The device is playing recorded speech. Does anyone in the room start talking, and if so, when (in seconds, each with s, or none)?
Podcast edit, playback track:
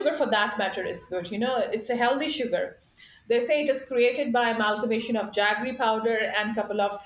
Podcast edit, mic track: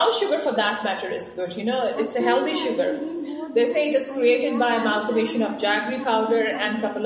1.9 s